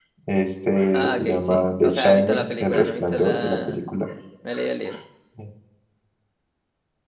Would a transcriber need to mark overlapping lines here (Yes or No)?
Yes